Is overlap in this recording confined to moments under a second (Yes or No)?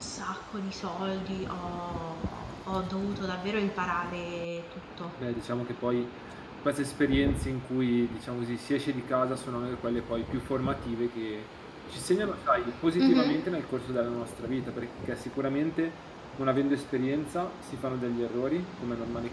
Yes